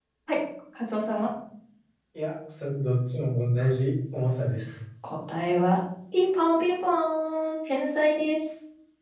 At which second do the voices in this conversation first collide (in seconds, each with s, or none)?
none